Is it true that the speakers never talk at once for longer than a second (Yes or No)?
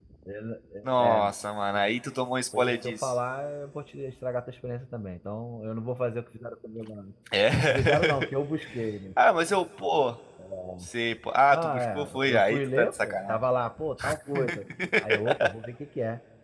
No